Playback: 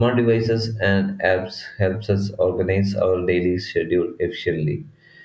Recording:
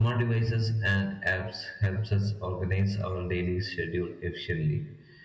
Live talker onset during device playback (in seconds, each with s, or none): none